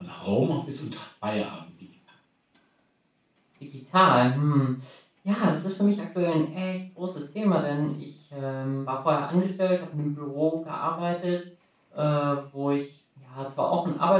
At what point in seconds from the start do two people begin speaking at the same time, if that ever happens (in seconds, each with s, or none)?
none